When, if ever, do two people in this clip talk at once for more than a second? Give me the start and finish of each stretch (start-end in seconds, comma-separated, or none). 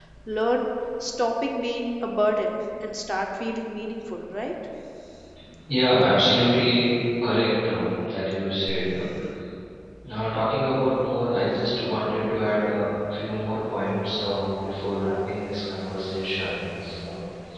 none